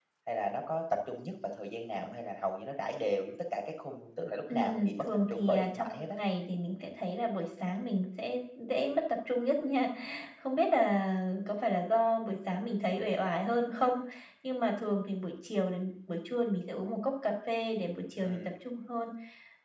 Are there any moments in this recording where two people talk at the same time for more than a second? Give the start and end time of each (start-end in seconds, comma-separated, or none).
4.5-6.2